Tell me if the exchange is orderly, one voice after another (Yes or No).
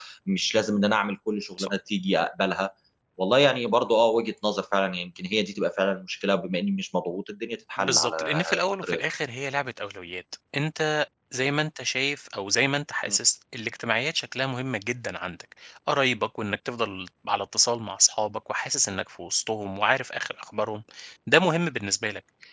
No